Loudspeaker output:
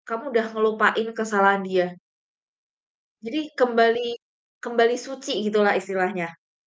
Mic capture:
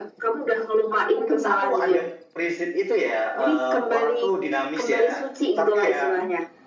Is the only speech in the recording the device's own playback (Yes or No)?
No